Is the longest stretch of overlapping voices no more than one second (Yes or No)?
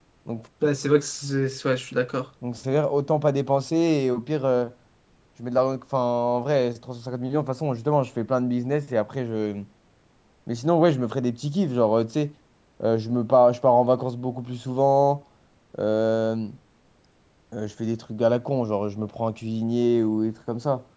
Yes